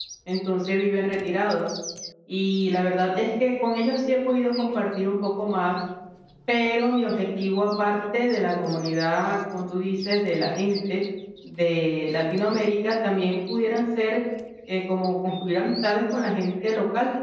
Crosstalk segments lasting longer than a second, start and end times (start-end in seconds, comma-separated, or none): none